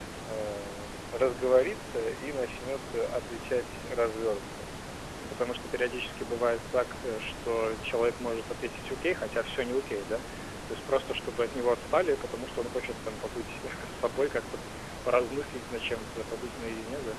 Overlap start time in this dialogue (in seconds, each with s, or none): none